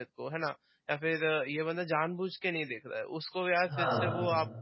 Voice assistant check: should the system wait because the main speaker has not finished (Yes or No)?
Yes